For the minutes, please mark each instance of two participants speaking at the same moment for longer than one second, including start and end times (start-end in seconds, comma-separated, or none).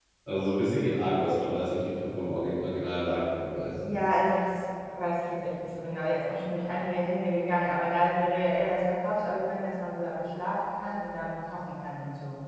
none